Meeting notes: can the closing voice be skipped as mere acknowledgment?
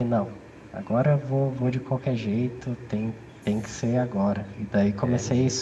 Yes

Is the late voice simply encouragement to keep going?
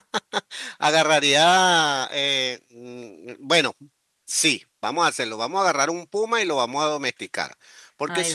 Yes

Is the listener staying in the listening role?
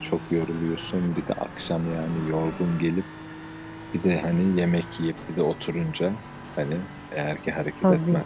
Yes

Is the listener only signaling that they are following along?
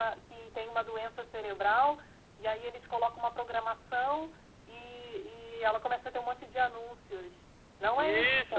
No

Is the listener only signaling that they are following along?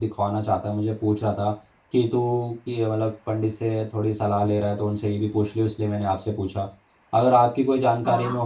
Yes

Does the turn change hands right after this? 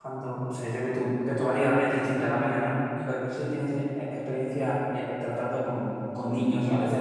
Yes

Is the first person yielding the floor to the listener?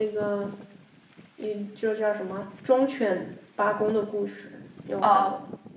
Yes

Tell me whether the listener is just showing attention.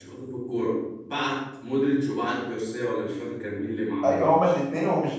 No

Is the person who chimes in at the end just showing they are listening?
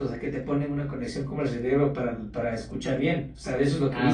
No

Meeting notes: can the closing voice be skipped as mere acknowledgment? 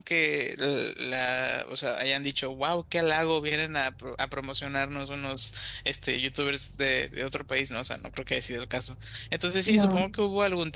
Yes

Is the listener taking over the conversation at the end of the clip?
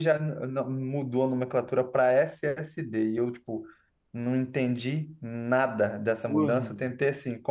No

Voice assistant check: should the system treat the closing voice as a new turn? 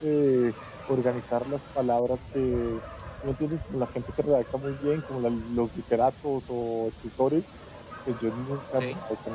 No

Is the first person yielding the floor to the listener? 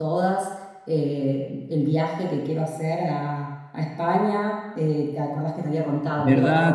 Yes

